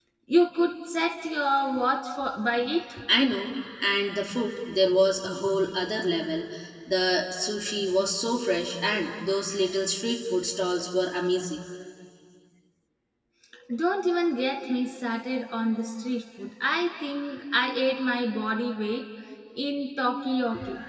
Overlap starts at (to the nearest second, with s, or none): none